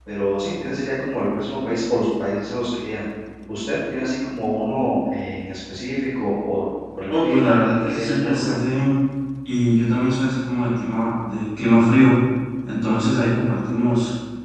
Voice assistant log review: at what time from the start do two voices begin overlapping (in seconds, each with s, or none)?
7.1 s